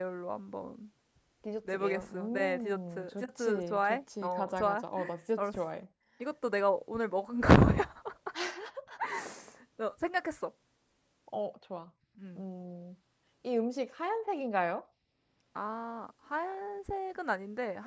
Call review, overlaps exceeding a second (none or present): present